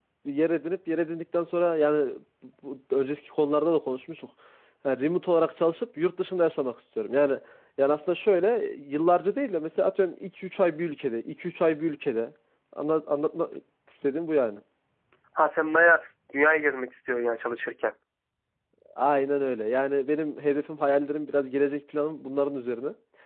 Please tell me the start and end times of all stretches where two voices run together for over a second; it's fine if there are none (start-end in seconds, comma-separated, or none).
none